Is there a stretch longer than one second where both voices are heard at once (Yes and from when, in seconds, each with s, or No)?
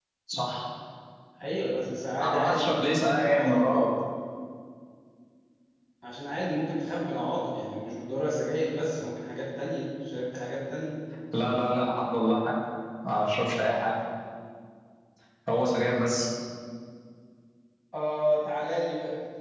Yes, from 2.2 s